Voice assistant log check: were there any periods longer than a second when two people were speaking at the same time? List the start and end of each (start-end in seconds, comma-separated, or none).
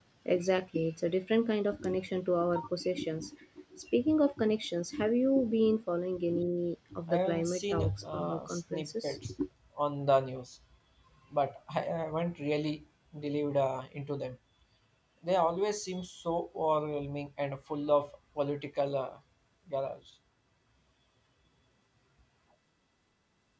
7.1-9.2